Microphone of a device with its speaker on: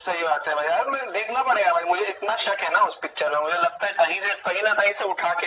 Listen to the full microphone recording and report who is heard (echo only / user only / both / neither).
echo only